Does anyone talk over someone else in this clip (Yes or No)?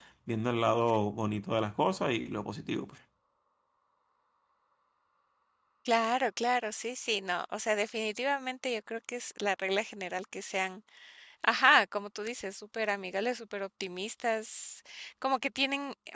No